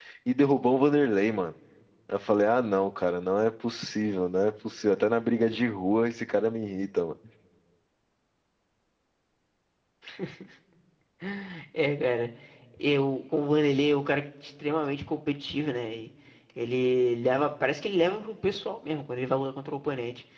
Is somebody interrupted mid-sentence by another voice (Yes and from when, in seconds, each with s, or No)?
No